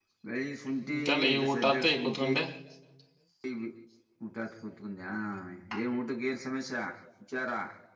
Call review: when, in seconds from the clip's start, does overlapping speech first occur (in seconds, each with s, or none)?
0.9 s